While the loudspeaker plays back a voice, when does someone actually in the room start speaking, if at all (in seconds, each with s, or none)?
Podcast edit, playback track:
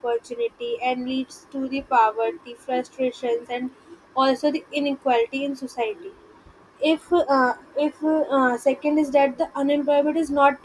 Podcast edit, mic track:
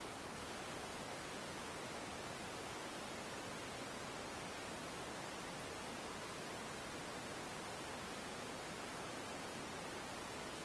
none